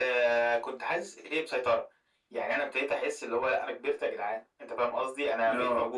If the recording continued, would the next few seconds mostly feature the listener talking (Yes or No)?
No